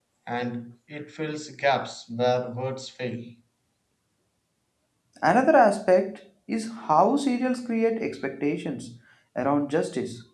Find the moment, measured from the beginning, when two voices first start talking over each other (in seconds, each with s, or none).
none